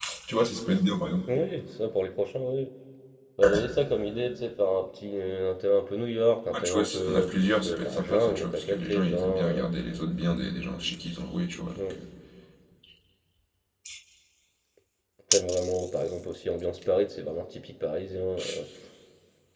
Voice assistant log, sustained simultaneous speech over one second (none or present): present